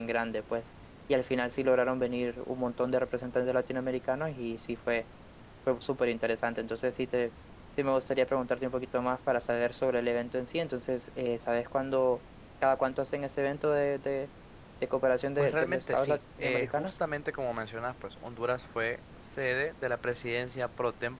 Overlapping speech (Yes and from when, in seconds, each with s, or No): Yes, from 15.4 s